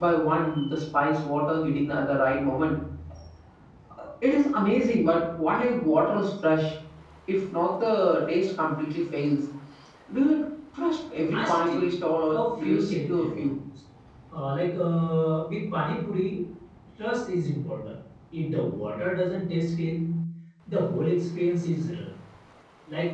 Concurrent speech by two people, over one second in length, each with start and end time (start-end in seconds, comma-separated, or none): 12.3-13.5